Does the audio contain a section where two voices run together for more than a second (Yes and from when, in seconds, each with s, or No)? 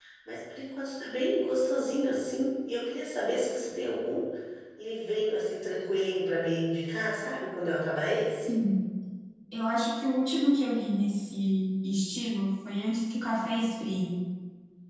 No